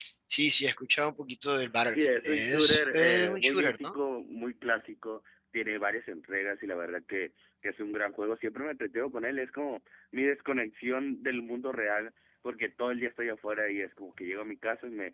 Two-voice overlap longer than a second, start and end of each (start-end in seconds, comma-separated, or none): 1.9-3.9